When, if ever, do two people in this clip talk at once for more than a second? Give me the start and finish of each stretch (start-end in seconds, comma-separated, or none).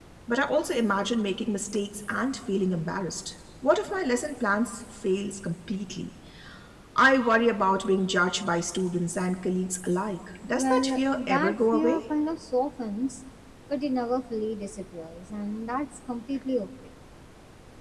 10.5-12.0